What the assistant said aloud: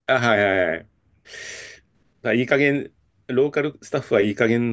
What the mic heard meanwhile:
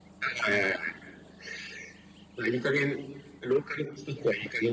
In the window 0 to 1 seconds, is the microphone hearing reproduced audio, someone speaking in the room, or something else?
echo only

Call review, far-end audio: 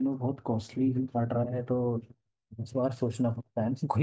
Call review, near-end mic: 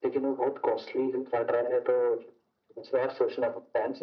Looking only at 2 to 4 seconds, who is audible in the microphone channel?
echo only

